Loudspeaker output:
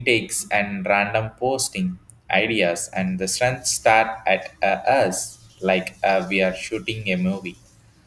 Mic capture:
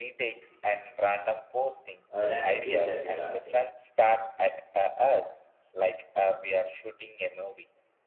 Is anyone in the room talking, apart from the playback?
Yes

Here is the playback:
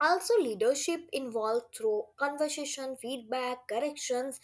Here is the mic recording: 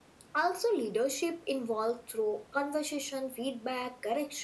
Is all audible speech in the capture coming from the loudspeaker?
Yes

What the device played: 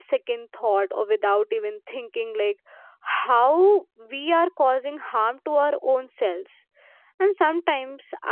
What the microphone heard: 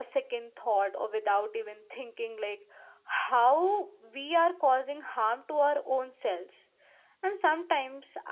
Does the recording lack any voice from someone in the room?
Yes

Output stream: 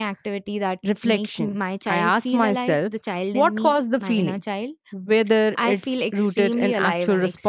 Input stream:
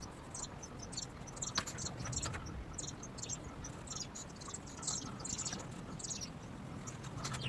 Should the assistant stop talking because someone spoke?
No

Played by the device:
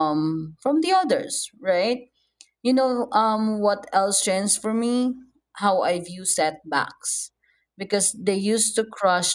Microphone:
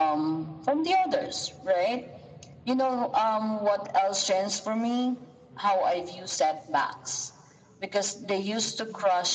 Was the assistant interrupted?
No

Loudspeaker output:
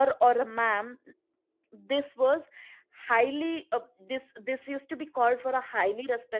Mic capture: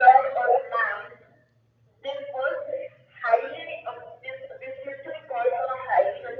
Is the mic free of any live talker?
Yes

